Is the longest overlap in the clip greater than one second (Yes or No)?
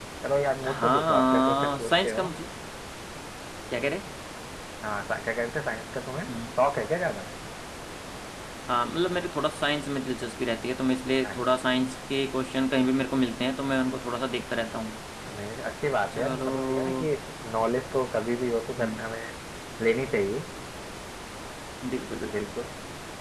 Yes